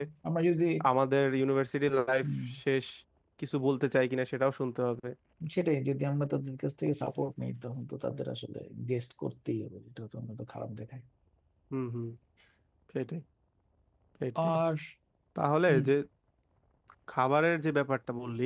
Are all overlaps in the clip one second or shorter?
Yes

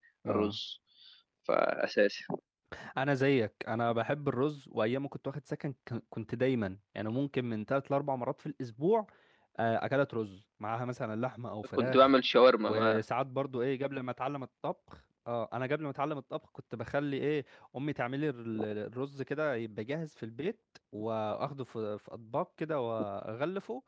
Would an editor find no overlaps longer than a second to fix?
Yes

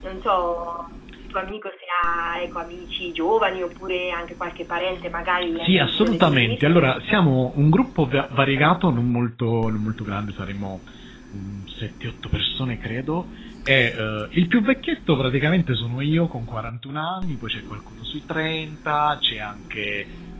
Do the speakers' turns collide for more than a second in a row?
Yes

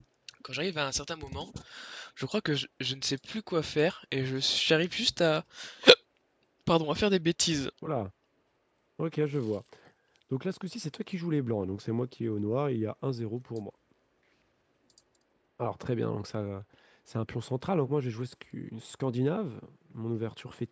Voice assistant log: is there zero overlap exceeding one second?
Yes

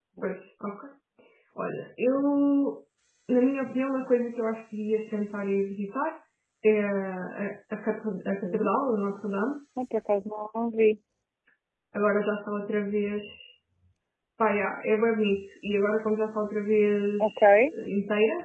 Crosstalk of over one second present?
No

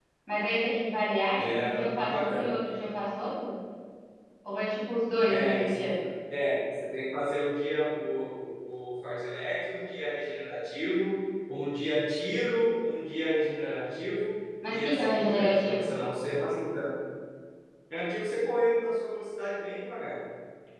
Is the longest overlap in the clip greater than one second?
Yes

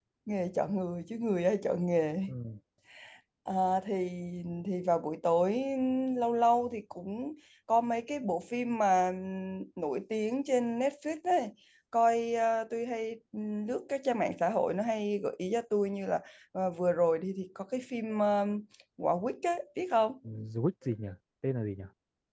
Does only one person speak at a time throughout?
Yes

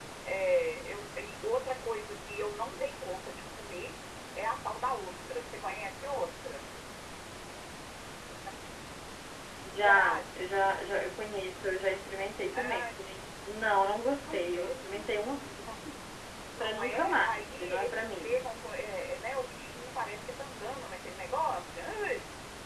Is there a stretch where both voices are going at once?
Yes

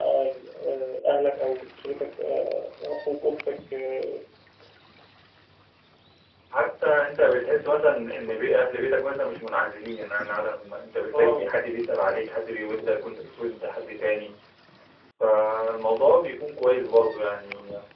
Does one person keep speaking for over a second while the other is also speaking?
No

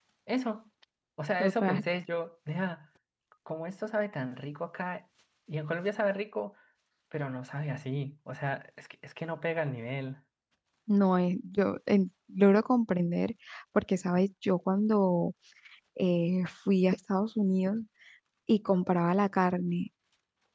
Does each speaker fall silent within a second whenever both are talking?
Yes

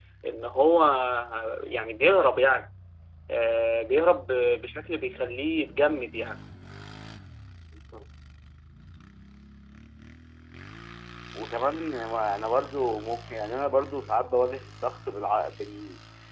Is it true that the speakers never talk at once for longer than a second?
Yes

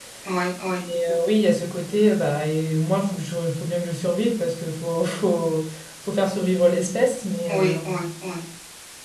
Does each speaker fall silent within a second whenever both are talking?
Yes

